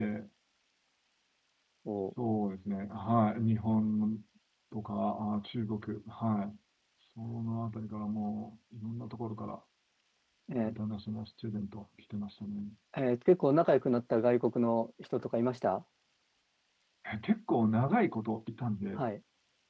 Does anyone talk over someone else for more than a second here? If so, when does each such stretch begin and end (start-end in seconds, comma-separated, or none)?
none